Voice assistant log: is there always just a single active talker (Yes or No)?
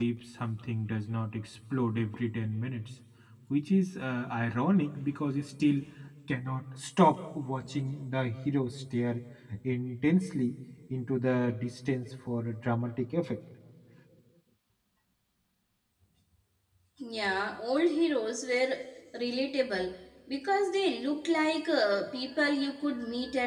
Yes